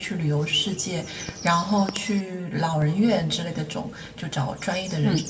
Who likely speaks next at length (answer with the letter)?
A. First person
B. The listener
A